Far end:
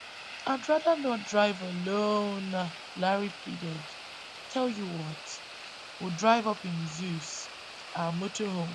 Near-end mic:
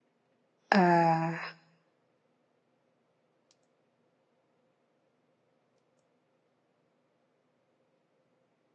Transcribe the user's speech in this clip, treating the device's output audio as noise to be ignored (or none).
Uh,